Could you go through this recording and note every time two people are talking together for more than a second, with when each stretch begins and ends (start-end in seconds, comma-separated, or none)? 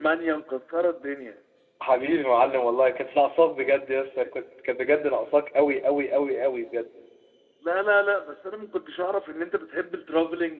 none